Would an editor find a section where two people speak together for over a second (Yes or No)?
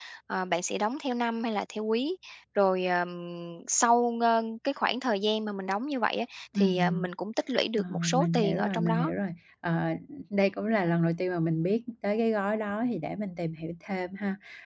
Yes